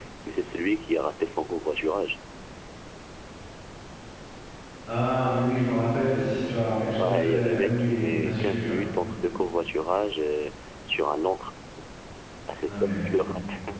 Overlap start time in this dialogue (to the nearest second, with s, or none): 7 s